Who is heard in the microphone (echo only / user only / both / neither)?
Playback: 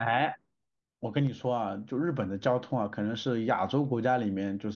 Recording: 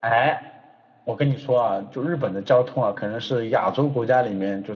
echo only